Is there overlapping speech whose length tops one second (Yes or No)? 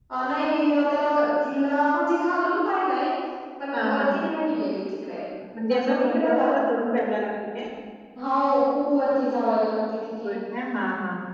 Yes